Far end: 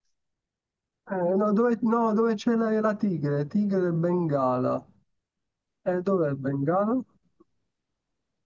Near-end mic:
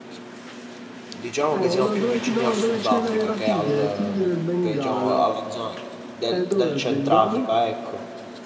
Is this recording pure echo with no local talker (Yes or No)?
No